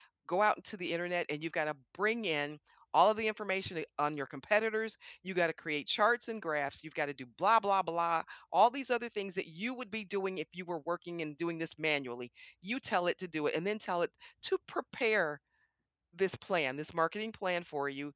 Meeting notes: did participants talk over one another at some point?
No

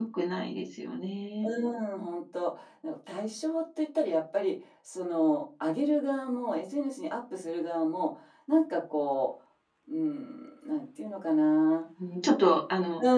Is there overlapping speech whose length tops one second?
No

